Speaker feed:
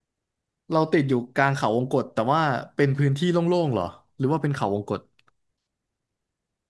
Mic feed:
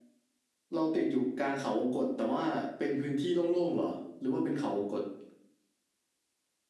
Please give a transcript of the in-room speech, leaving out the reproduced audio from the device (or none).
none